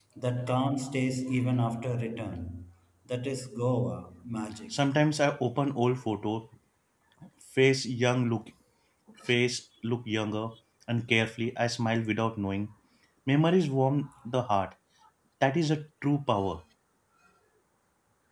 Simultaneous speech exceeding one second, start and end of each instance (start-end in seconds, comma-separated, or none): none